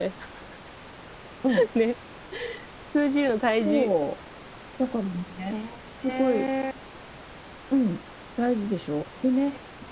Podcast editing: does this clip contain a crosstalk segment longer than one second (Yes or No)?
No